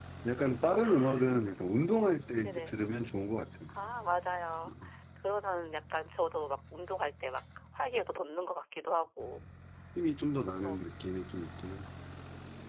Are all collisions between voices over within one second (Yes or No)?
Yes